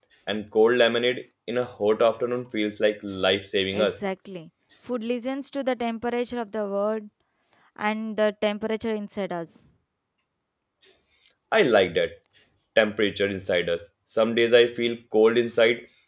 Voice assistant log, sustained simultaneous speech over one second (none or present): none